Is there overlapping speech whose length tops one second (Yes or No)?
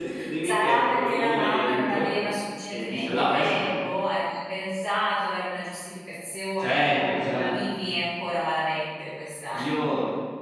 Yes